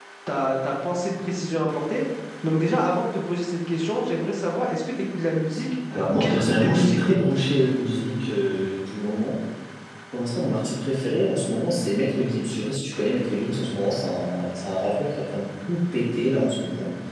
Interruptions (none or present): present